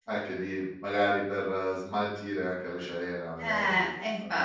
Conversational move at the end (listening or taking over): taking over